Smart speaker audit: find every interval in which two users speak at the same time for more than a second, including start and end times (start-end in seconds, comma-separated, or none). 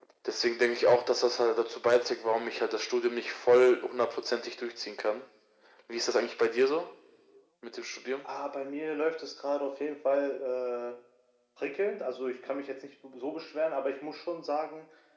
none